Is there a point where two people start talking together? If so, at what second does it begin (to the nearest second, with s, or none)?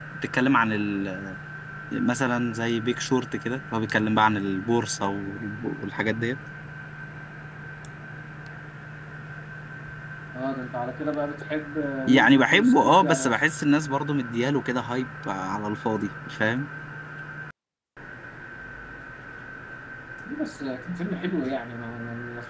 12 s